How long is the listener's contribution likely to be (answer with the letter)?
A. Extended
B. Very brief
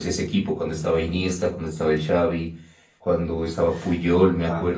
B